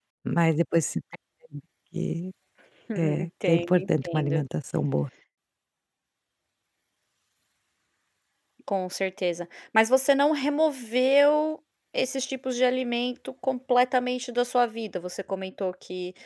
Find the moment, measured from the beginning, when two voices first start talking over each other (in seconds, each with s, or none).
3.0 s